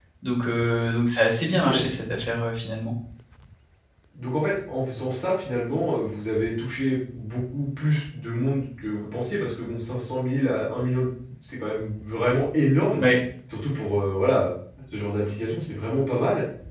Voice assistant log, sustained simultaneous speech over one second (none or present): none